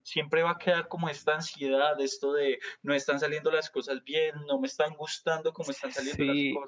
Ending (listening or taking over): taking over